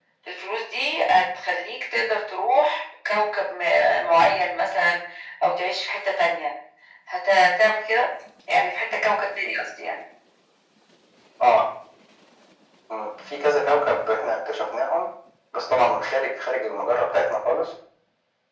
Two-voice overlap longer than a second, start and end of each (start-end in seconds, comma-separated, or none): none